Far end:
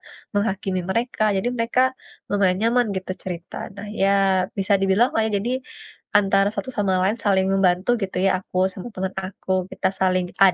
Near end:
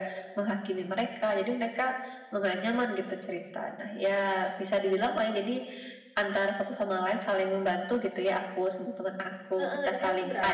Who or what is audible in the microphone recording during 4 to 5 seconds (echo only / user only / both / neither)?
echo only